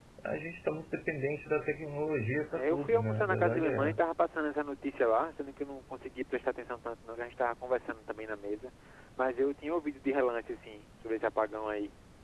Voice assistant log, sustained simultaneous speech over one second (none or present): present